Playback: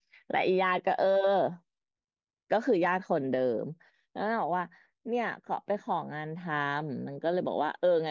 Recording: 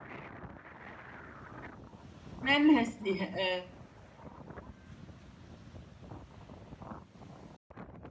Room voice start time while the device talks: 2.5 s

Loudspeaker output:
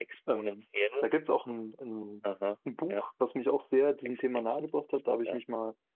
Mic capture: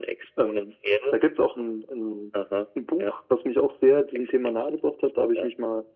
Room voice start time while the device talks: none

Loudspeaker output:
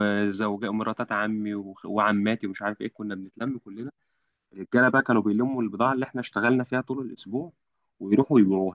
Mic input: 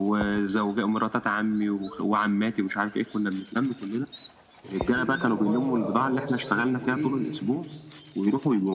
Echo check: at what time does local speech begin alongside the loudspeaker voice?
4.6 s

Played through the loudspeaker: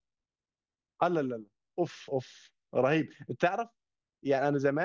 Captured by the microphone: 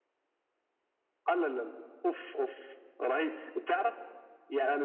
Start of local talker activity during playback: none

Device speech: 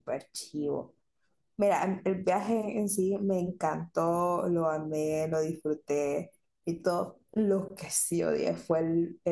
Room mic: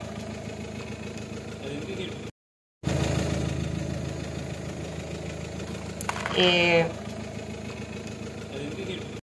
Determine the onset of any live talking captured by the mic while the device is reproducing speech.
6.3 s

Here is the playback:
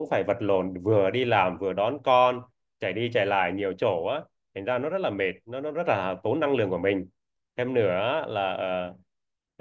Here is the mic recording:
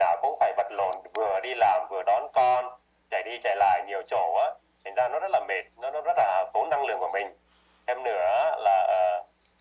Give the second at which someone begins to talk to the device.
none

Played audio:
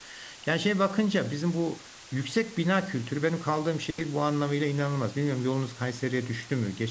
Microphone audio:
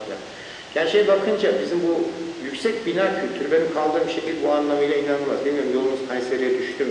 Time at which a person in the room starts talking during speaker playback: none

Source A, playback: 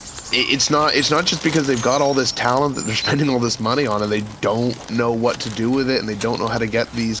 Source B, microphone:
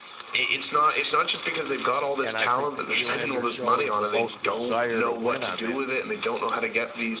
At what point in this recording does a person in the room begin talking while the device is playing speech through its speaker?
2.2 s

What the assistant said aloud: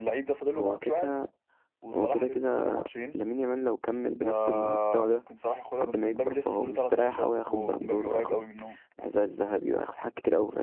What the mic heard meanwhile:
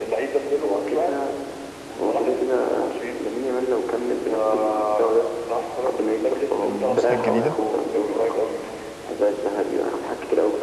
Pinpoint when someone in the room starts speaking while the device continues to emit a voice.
6.6 s

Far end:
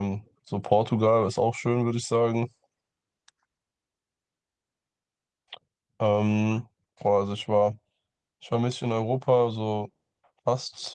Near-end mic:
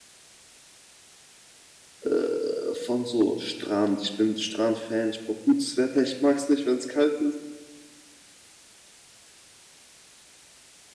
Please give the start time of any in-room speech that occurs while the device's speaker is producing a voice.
2.0 s

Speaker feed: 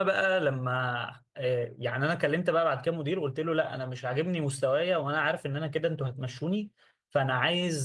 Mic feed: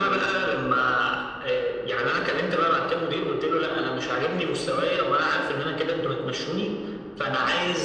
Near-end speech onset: none

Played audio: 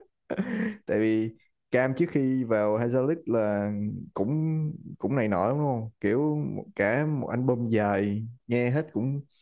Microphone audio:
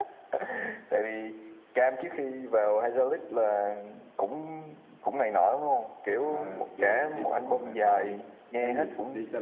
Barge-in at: 6.2 s

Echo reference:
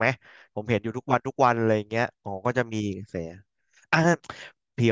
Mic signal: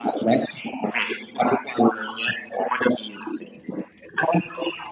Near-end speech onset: none

